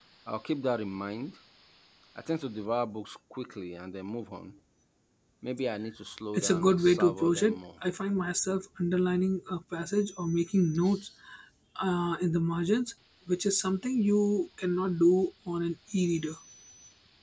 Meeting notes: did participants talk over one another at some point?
Yes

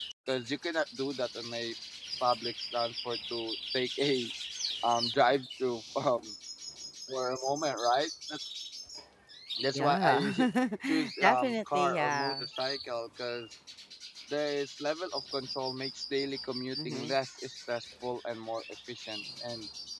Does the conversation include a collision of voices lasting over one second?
Yes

